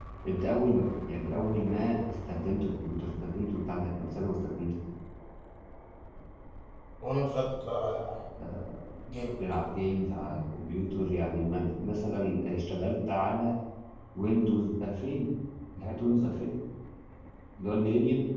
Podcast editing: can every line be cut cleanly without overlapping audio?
Yes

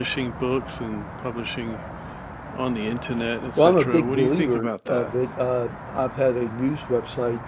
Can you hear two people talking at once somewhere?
Yes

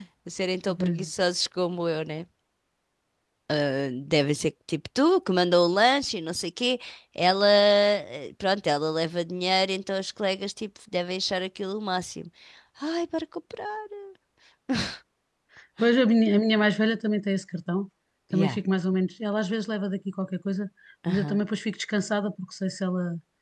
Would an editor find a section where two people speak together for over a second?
No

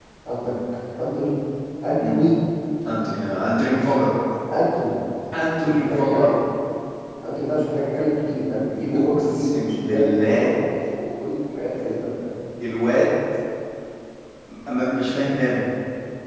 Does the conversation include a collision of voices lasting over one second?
Yes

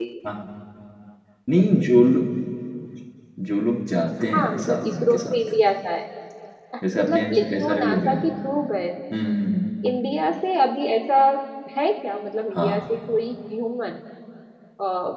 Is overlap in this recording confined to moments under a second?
No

